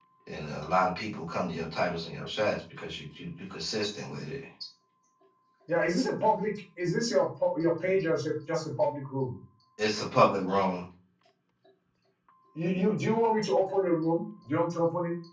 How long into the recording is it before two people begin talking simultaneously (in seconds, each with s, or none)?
none